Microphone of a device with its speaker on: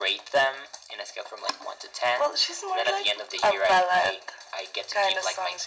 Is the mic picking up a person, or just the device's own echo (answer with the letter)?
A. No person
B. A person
A